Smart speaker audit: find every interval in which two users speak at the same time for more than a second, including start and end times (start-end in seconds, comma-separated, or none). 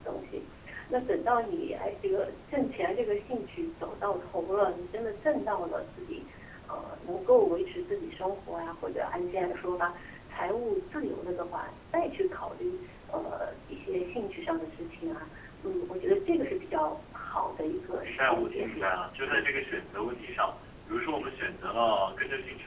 18.1-19.5